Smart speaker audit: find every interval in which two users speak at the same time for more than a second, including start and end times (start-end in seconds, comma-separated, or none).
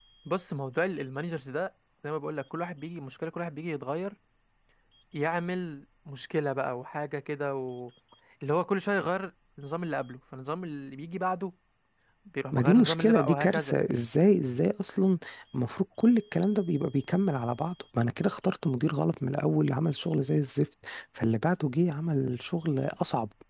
12.5-13.8